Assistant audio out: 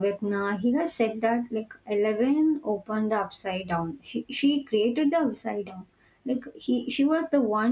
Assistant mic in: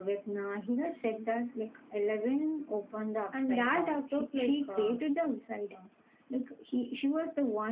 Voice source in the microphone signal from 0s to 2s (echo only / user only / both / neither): echo only